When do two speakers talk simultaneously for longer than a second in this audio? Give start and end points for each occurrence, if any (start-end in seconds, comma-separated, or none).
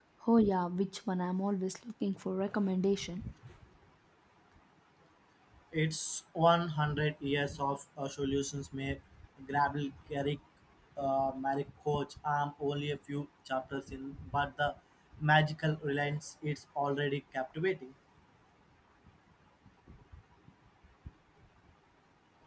none